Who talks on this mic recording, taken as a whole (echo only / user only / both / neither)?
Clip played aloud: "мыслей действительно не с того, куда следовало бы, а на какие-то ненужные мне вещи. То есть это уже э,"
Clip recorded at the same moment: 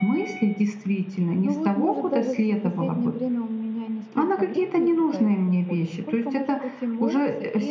both